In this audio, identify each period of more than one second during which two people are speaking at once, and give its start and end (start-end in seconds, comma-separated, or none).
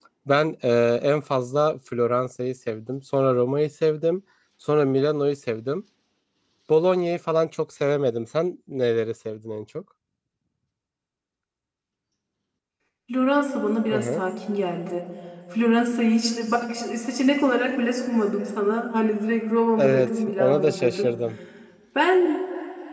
19.8-21.1